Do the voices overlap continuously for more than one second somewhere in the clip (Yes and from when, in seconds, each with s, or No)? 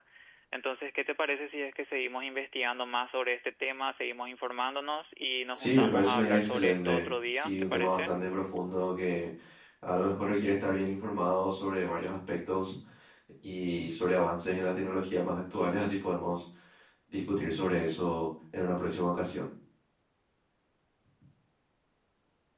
Yes, from 5.6 s